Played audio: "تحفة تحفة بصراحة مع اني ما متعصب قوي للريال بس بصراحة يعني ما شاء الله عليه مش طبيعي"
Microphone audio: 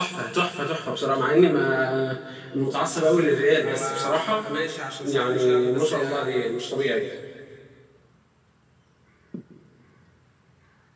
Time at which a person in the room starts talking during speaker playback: 3.6 s

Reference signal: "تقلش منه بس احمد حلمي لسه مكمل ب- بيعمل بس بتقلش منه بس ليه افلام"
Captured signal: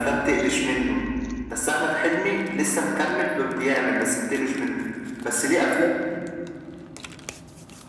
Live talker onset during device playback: none

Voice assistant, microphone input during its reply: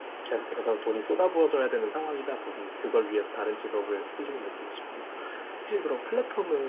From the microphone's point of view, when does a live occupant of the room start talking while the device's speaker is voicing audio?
none

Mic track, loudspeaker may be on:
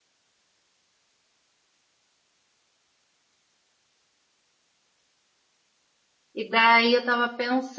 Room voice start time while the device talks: 6.3 s

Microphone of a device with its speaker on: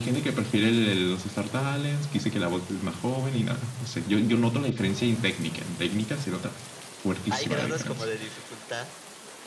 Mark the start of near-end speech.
7.3 s

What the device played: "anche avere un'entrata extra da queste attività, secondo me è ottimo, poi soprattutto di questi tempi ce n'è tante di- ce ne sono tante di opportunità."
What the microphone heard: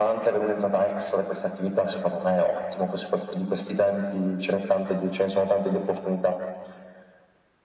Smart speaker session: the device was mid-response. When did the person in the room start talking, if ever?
none

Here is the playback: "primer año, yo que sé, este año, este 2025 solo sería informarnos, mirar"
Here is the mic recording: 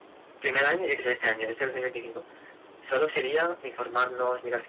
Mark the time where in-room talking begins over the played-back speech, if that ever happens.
none

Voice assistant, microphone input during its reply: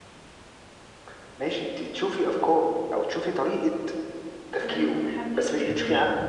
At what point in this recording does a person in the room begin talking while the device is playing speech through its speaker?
4.6 s

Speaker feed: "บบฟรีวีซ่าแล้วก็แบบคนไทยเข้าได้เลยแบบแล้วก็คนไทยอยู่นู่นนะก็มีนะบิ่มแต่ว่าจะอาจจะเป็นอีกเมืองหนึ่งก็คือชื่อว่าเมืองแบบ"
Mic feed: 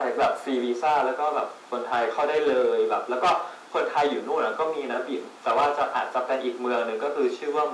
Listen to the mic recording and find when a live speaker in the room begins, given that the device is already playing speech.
none

